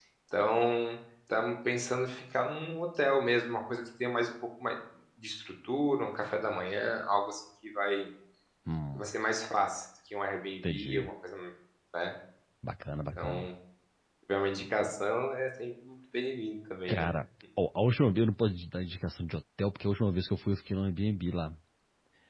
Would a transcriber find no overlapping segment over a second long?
Yes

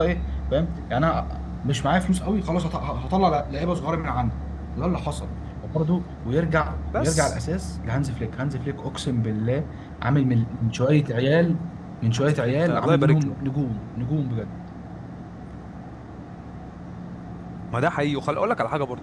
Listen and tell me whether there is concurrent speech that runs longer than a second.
Yes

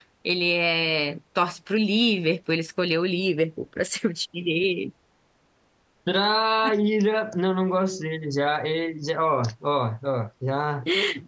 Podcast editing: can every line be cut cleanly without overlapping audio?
Yes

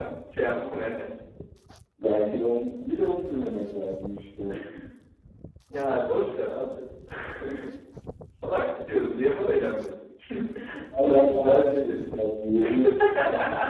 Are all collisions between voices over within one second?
No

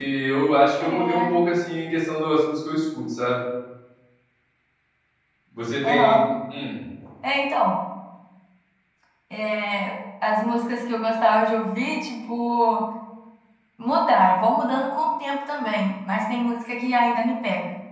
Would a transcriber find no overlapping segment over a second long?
Yes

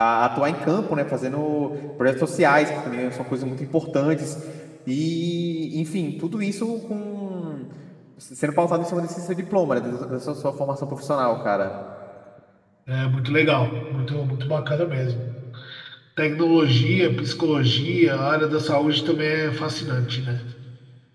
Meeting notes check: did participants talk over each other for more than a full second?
No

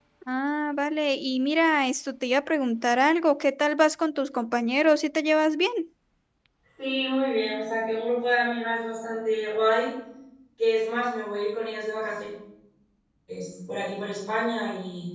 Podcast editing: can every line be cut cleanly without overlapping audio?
Yes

